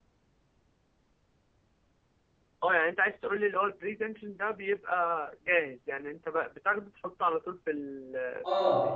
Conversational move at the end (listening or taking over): taking over